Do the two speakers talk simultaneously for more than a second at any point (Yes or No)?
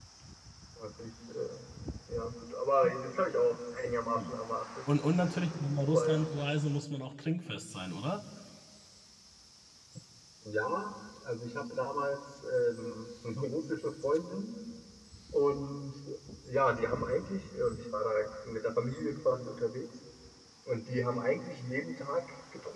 No